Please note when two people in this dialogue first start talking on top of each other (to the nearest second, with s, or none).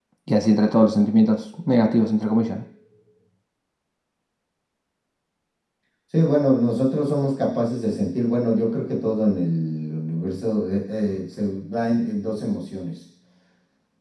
none